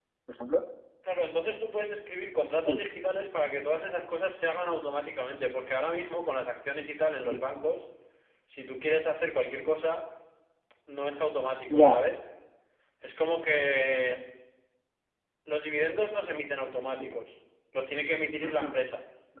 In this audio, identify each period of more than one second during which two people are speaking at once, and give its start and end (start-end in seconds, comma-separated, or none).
none